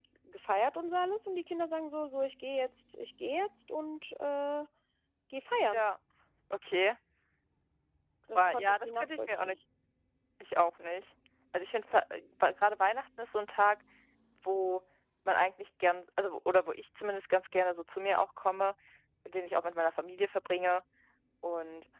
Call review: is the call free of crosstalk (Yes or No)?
No